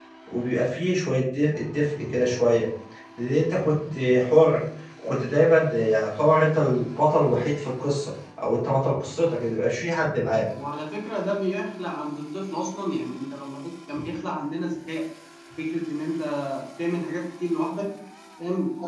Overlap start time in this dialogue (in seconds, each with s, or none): none